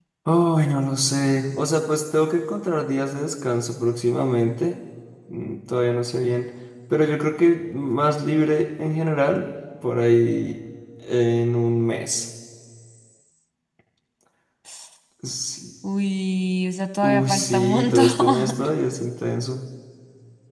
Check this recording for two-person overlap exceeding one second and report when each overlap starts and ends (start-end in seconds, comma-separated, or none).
17.0-18.6